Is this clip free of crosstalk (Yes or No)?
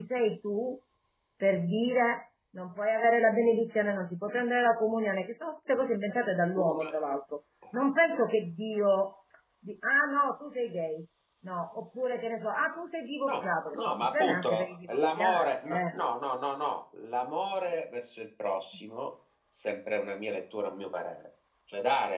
No